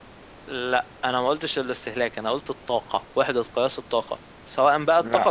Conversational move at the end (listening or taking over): listening